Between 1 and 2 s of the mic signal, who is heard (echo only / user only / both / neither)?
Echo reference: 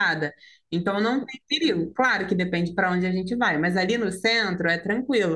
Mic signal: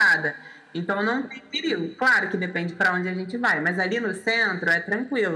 echo only